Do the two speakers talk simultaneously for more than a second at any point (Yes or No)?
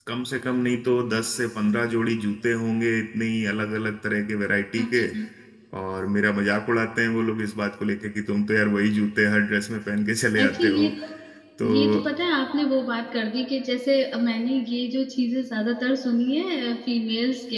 No